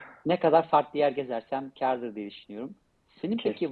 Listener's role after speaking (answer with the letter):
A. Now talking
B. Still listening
B